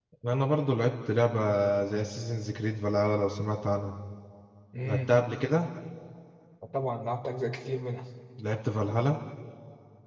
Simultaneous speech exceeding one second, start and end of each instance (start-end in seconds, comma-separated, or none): none